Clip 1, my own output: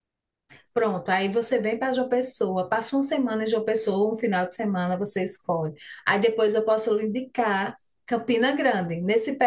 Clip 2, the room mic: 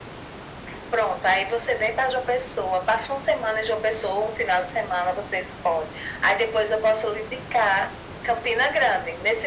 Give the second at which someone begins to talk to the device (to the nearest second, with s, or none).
none